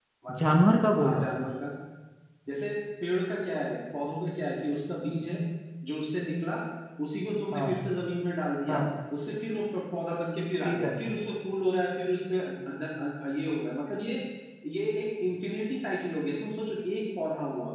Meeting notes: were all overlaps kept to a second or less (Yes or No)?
Yes